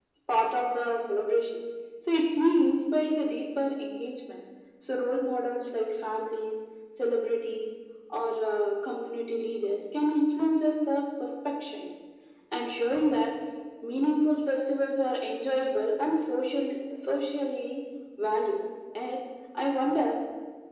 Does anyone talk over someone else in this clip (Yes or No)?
No